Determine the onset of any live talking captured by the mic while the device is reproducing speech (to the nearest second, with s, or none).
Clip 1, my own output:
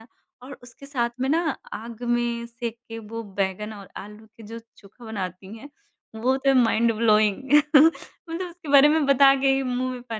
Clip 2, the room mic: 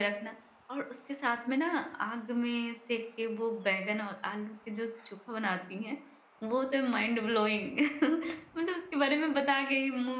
none